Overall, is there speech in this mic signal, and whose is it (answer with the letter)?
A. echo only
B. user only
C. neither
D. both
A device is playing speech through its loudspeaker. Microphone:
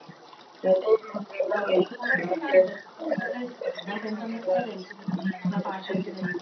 D